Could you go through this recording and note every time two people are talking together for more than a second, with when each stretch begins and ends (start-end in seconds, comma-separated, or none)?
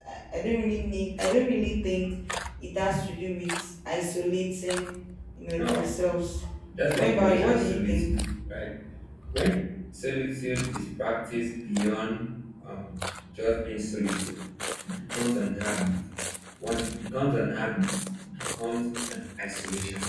6.9-8.1